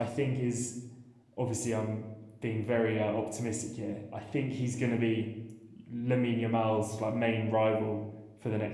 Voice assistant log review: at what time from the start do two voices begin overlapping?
none

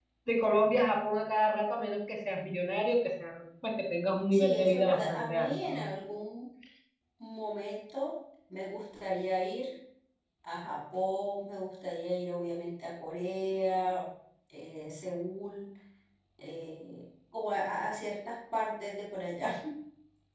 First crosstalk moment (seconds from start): 4.3 s

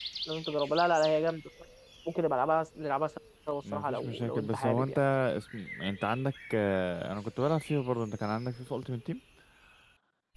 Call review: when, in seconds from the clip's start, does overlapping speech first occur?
3.7 s

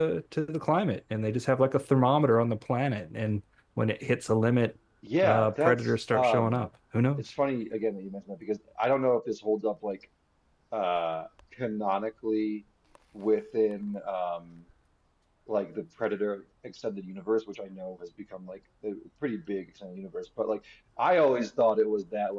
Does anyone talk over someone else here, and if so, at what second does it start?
5.2 s

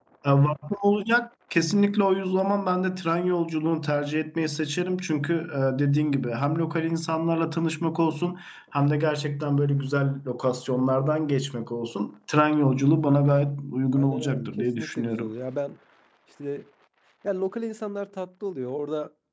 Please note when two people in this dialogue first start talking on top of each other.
13.9 s

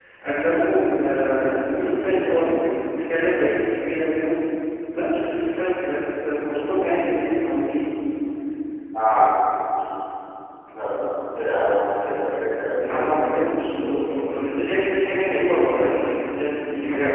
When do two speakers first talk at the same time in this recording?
12.8 s

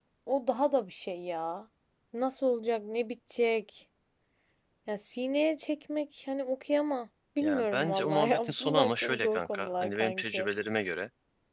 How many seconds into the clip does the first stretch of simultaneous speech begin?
7.4 s

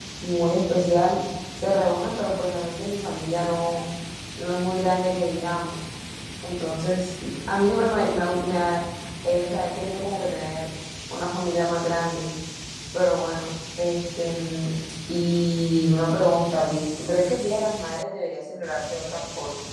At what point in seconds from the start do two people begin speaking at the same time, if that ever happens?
none

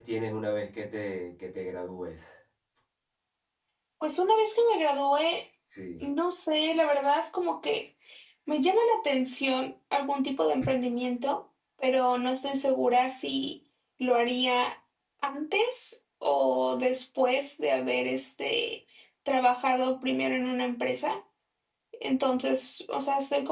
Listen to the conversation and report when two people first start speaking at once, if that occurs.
none

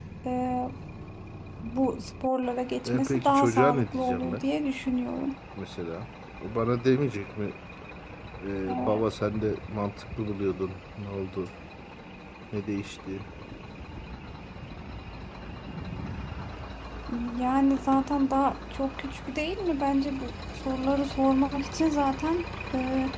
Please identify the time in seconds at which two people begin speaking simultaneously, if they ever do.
2.9 s

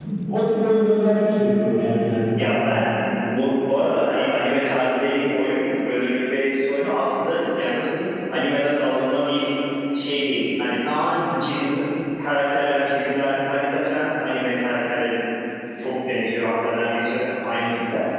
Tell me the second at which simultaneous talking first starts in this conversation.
none

